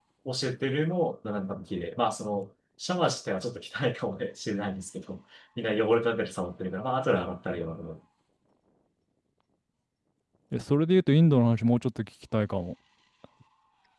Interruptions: none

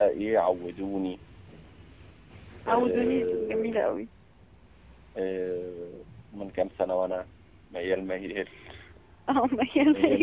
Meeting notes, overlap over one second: present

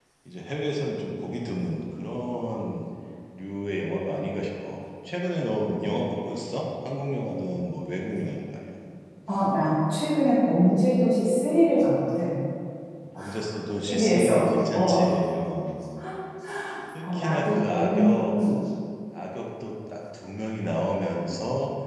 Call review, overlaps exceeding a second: present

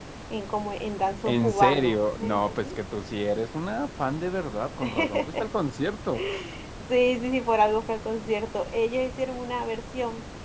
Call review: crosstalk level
present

